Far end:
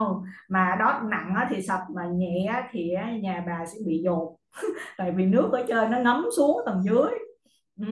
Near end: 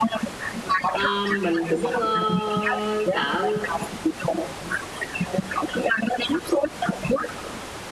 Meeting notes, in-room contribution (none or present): present